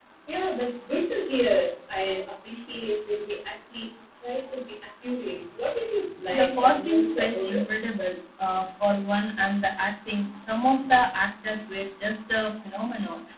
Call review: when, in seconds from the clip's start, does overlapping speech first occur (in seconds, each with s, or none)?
6.3 s